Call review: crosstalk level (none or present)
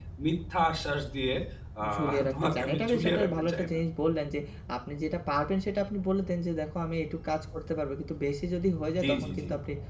present